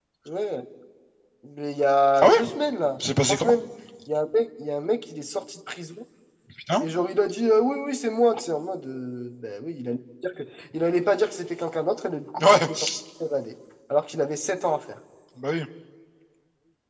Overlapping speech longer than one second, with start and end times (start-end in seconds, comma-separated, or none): none